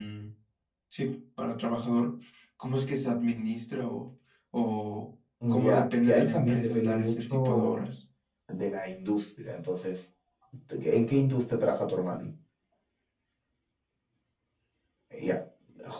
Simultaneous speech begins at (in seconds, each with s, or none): 5.4 s